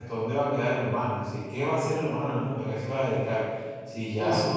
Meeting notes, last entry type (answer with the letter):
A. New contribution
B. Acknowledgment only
B